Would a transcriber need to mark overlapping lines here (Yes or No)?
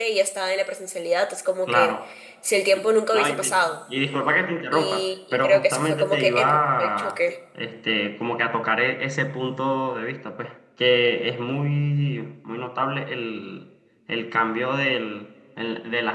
Yes